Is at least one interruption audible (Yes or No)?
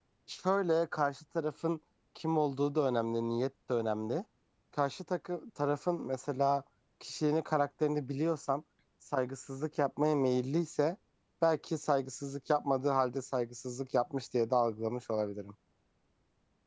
No